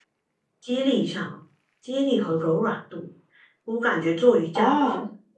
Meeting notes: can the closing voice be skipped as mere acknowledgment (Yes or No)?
Yes